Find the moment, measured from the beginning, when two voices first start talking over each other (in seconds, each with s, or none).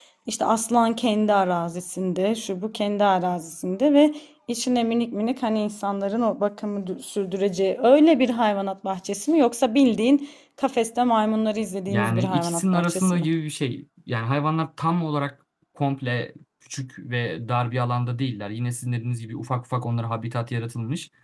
11.9 s